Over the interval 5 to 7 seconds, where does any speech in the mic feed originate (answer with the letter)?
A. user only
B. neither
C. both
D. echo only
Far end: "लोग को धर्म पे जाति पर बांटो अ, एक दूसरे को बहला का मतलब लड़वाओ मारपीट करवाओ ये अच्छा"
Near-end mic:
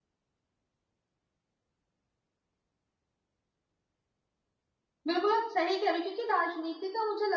A